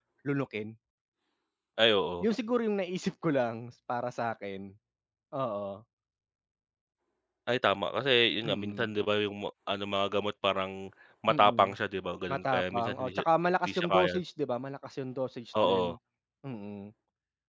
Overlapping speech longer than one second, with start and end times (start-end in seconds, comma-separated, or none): 12.3-14.1